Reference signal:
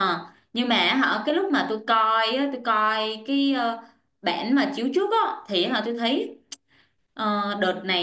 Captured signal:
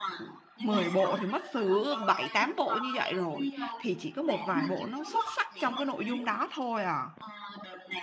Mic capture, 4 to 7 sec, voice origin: both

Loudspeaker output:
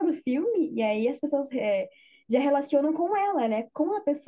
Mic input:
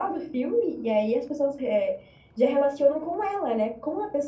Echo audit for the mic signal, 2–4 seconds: echo only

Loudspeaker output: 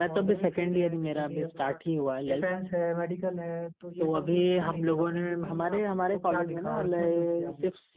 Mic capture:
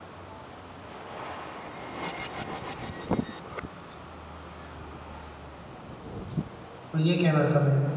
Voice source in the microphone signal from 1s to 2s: neither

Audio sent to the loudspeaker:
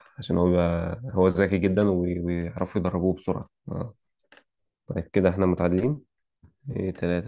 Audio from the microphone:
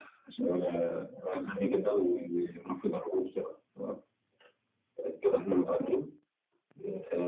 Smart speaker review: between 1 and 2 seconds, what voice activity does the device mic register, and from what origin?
echo only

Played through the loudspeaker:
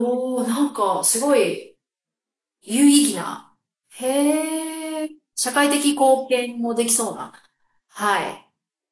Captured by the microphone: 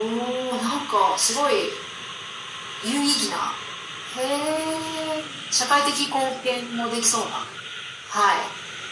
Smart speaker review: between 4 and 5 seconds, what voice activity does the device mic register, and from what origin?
echo only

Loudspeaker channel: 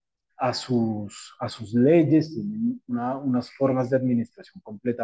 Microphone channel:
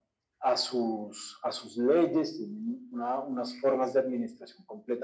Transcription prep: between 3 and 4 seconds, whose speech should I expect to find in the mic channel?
echo only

